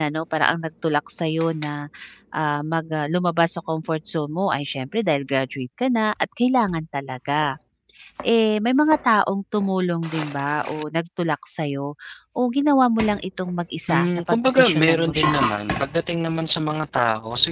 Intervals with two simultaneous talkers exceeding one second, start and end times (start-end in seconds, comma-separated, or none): 13.9-15.4